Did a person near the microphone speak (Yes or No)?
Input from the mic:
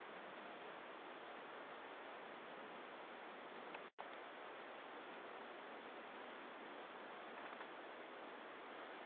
No